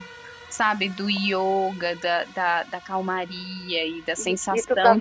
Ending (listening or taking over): taking over